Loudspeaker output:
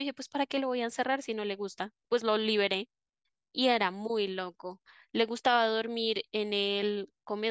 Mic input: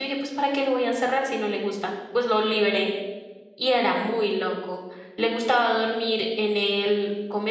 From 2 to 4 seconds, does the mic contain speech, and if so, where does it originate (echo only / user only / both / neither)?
echo only